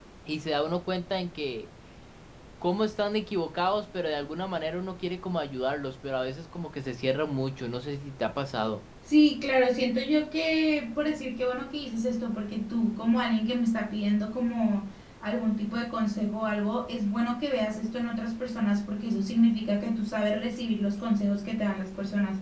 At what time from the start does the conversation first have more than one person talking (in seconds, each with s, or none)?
none